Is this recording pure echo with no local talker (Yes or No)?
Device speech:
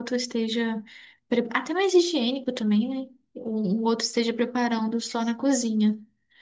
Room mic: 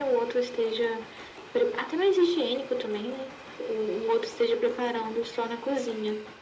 Yes